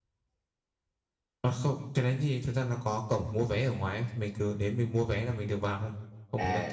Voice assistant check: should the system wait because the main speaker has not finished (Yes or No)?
No